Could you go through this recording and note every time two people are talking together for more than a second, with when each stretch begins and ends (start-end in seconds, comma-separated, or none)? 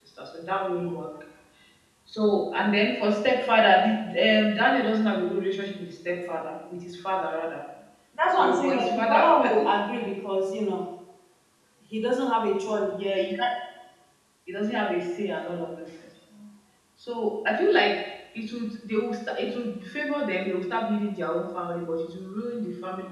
8.3-9.7